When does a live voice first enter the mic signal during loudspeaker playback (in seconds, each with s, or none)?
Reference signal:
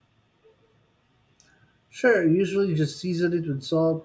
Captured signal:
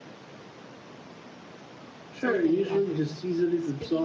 2.2 s